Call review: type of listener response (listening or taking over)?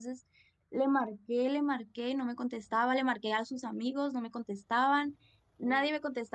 listening